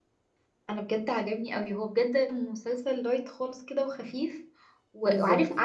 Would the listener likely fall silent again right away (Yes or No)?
Yes